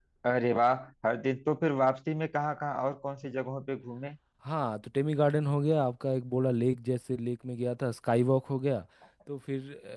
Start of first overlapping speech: none

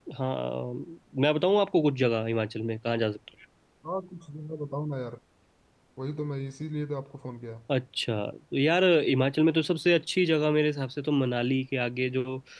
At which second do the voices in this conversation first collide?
none

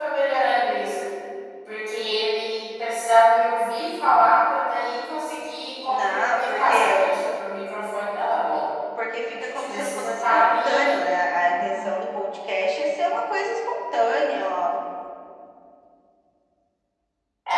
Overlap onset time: 5.9 s

